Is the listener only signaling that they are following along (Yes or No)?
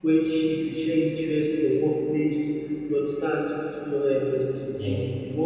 Yes